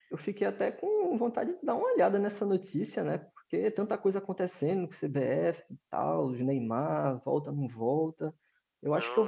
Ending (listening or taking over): listening